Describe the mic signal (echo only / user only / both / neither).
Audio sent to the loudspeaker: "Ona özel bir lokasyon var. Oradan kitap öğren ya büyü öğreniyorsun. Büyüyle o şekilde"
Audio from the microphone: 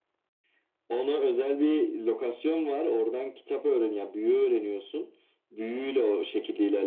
echo only